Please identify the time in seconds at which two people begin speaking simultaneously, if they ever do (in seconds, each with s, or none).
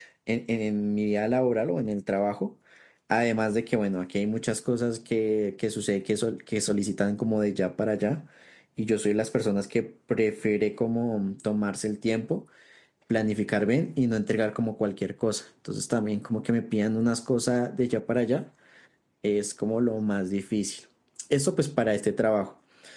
none